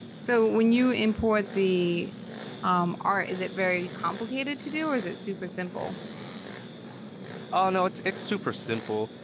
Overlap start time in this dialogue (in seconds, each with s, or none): none